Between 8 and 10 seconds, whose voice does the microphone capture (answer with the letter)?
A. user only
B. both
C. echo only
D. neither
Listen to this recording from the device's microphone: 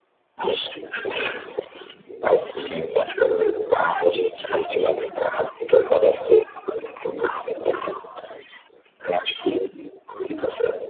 C